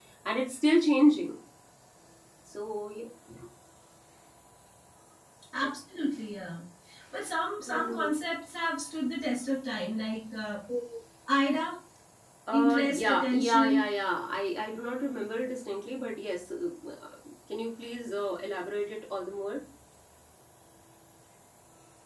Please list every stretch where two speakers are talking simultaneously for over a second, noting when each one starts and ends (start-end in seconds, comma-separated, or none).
12.5-13.8